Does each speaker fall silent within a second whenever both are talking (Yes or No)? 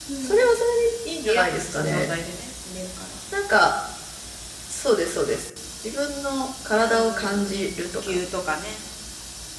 No